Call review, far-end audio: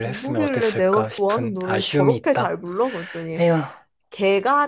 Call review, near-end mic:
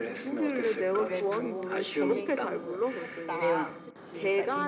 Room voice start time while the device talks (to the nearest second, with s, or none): 1 s